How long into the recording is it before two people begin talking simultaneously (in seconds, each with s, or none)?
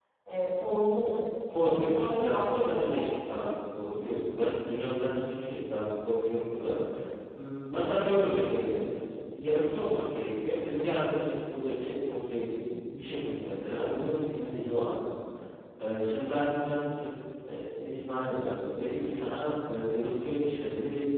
1.6 s